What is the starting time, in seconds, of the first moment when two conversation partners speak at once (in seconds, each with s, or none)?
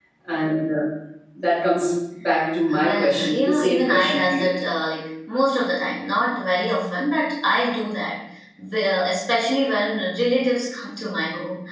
2.7 s